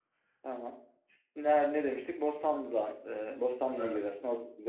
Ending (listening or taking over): listening